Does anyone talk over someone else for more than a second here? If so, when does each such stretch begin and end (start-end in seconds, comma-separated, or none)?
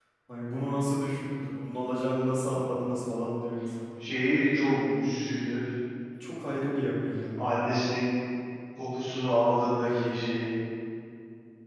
none